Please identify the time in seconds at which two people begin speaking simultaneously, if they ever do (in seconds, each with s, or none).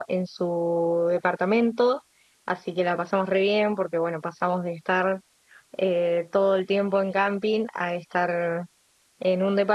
none